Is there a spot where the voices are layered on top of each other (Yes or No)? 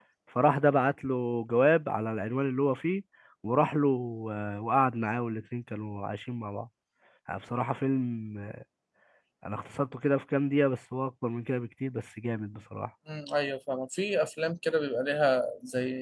No